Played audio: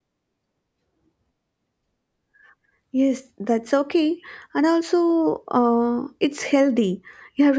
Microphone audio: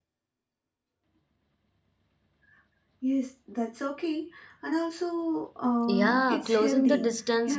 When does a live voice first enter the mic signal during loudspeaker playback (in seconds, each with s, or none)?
5.9 s